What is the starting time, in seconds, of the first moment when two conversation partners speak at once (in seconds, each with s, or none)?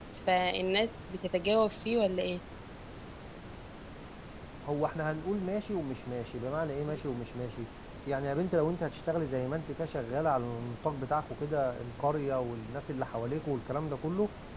none